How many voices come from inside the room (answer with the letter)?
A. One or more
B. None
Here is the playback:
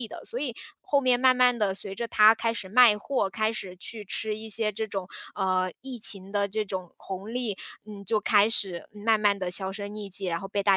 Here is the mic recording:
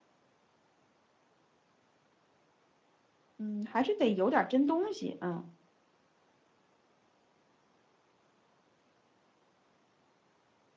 A